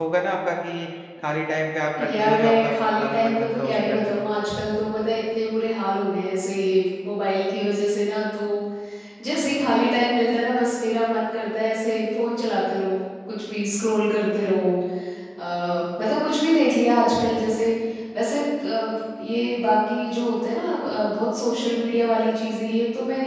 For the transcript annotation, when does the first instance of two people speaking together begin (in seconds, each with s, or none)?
2.0 s